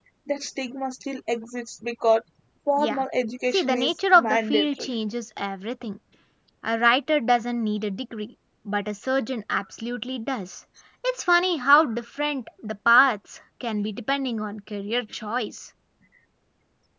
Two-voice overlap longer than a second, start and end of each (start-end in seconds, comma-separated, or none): 3.5-4.9